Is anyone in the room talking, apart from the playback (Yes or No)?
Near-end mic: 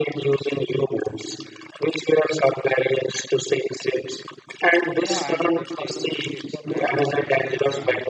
Yes